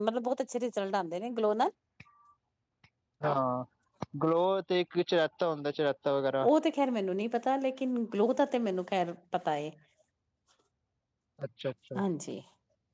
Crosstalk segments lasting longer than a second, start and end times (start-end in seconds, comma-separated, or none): none